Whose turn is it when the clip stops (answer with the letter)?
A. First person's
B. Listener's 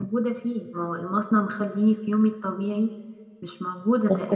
A